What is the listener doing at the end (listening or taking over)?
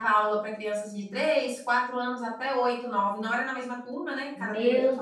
taking over